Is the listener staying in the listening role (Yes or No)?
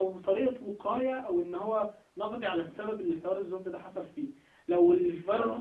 Yes